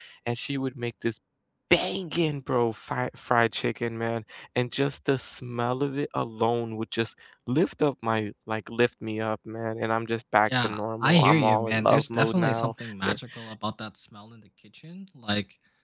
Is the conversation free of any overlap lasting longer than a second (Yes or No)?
No